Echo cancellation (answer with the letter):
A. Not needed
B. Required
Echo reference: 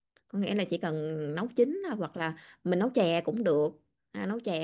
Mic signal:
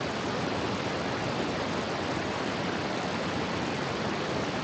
A